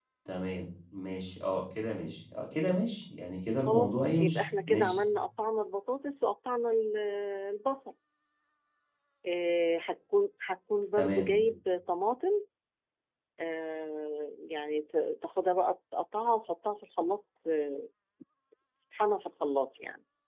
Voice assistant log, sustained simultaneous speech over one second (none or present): present